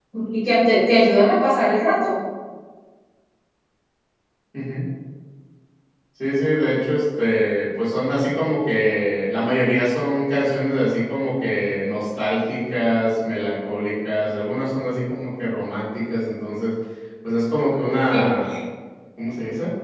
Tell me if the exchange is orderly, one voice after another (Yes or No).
Yes